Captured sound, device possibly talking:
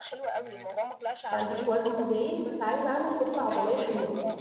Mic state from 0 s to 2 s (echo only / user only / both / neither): both